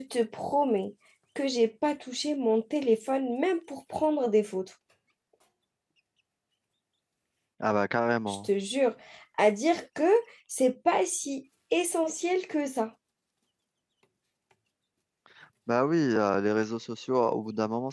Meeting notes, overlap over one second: none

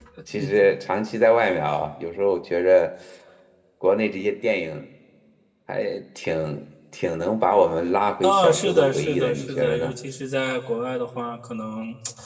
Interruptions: present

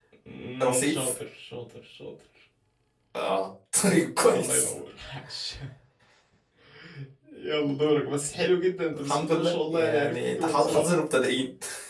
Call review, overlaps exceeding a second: present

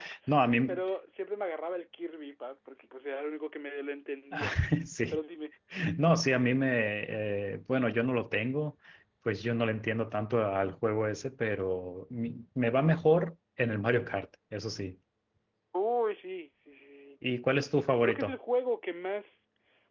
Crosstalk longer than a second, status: none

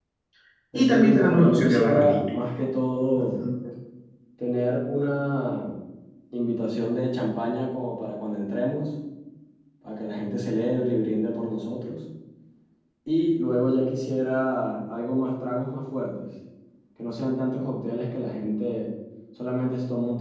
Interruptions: present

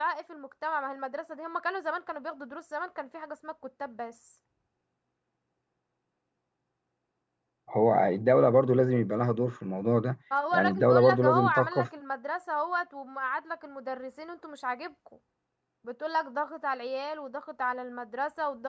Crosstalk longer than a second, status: present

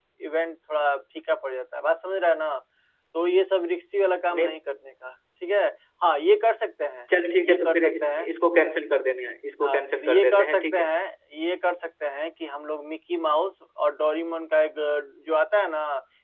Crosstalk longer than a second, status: present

